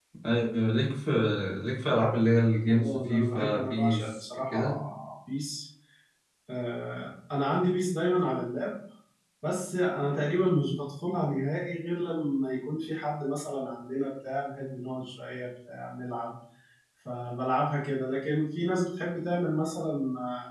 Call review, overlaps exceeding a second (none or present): present